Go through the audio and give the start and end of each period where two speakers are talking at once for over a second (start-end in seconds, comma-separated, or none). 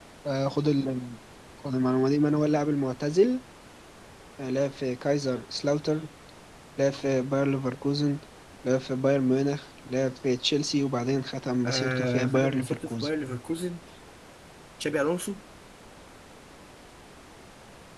11.6-13.1